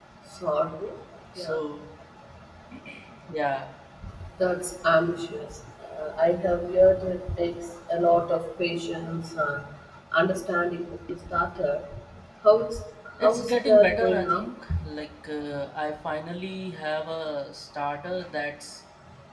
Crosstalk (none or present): present